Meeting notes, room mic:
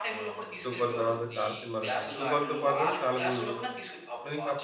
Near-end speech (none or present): present